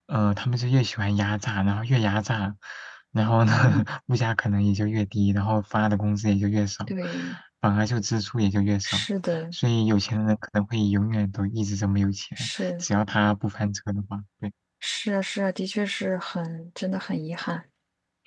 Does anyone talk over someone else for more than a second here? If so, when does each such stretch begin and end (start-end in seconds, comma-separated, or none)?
none